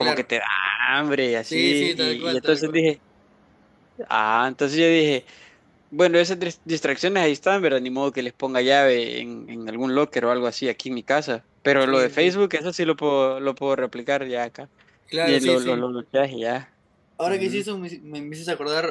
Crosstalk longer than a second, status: present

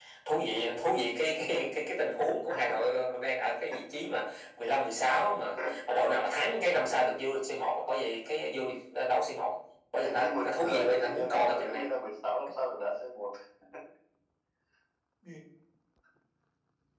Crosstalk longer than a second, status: present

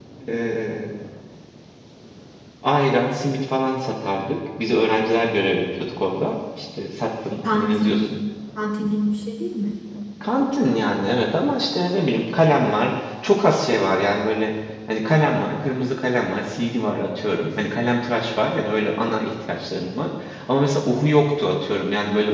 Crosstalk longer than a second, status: none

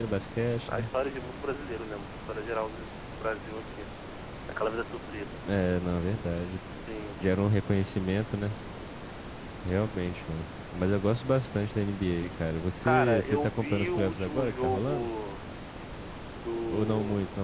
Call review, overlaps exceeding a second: present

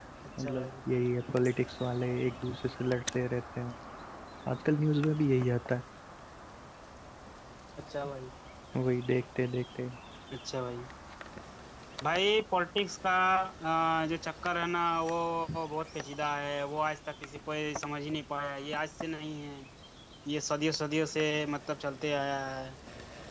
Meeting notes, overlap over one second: none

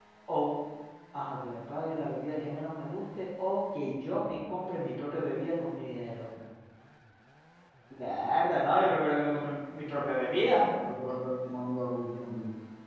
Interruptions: none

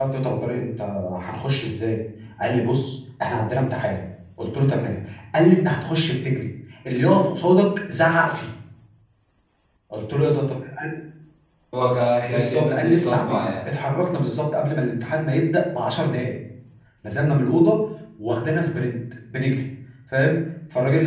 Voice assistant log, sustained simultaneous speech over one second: present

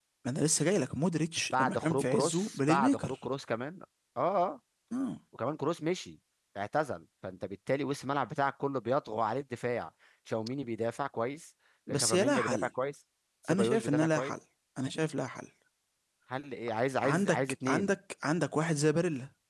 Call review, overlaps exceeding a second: present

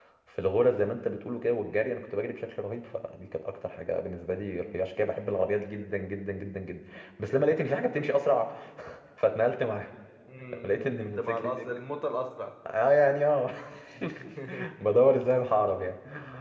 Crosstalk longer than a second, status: present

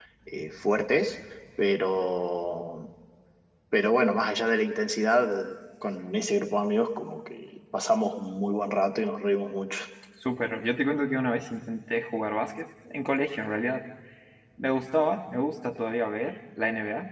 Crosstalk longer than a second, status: none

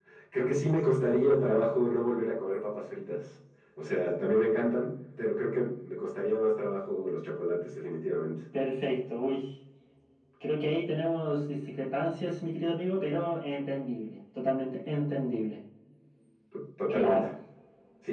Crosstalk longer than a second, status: none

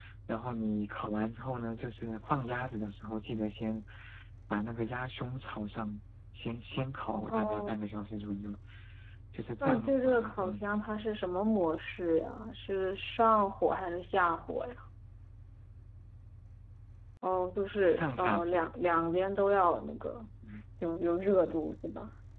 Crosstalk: present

